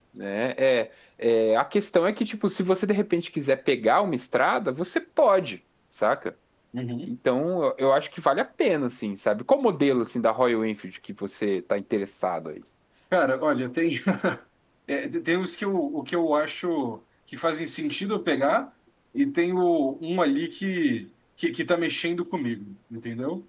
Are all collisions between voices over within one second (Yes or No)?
Yes